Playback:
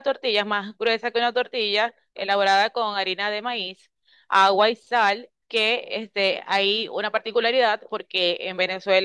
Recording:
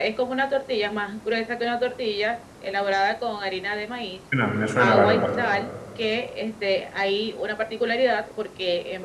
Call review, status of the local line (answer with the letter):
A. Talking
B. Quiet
A